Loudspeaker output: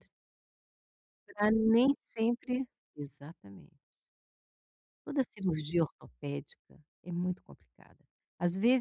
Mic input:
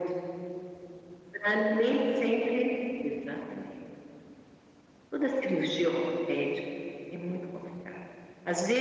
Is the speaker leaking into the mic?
Yes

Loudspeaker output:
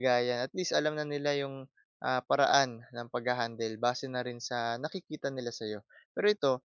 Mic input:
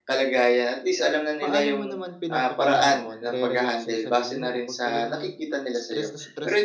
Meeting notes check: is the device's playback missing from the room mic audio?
No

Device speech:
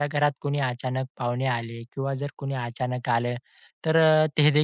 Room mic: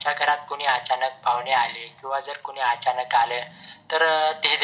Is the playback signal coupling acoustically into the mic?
Yes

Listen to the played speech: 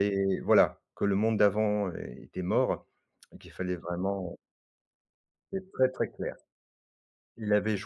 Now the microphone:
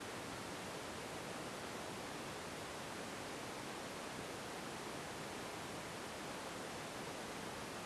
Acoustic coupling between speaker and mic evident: No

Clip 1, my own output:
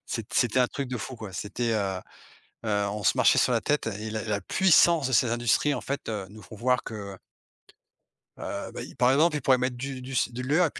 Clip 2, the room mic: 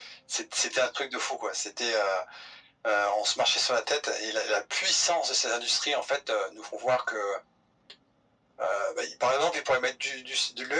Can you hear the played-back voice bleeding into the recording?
Yes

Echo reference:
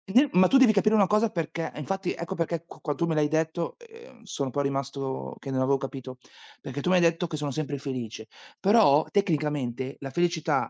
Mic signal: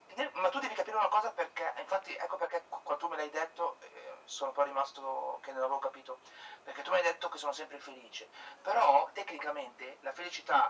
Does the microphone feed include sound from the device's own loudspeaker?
Yes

